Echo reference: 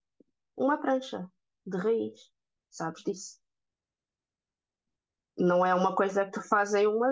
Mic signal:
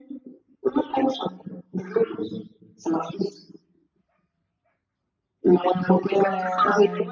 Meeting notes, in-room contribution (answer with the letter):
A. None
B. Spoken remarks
B